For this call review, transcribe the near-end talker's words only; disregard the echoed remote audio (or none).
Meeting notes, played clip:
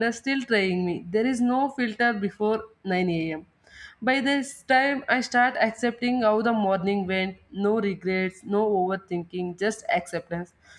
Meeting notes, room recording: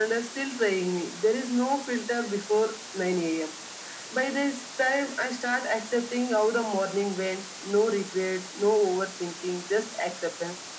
none